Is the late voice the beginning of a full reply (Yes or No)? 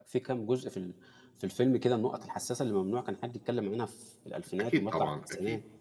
Yes